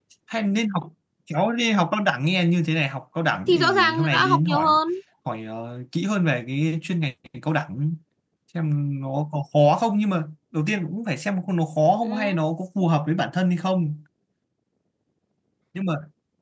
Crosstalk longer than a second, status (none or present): present